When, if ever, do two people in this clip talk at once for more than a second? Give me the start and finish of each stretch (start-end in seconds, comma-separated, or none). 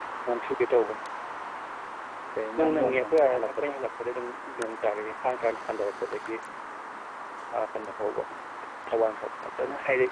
2.6-3.9